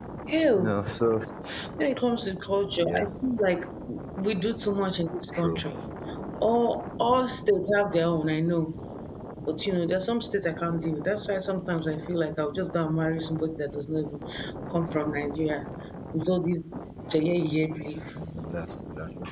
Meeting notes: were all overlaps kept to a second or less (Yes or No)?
Yes